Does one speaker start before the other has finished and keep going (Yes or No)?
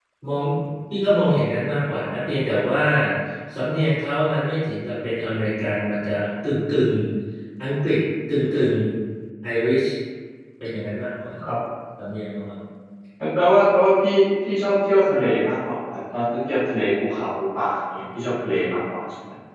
No